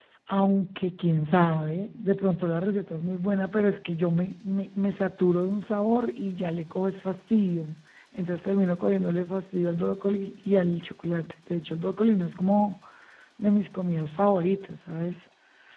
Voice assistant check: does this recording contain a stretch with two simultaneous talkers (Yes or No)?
No